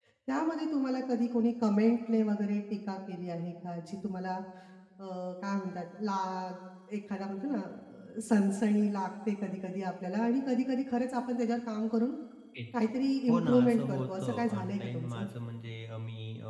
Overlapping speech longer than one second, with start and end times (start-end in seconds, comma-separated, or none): 13.3-15.2